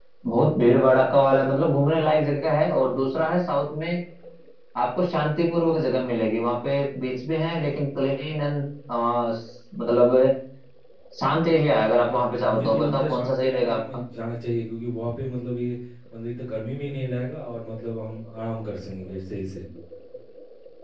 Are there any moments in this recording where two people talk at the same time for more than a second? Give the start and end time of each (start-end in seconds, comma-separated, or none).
12.5-13.8